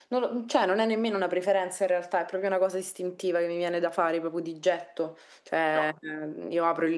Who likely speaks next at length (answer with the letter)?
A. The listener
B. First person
B